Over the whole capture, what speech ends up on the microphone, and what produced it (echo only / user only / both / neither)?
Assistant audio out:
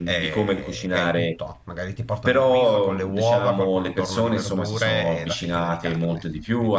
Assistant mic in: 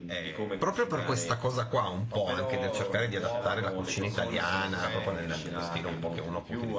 both